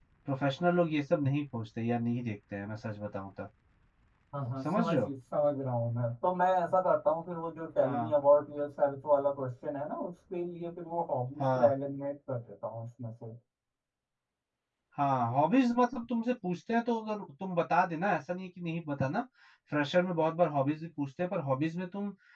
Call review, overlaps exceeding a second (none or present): none